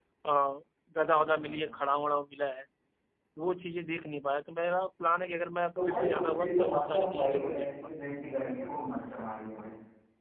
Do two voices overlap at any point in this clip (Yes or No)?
Yes